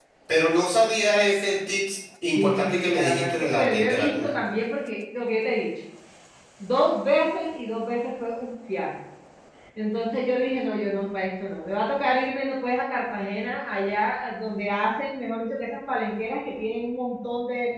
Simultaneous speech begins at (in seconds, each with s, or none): 2.4 s